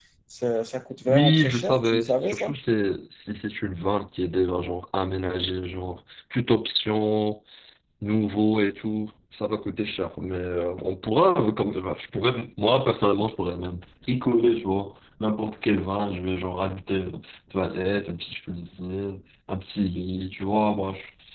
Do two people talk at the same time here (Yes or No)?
Yes